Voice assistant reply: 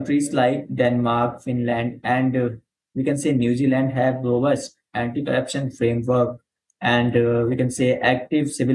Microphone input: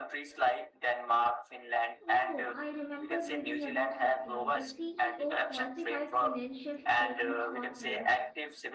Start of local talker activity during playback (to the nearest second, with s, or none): 2 s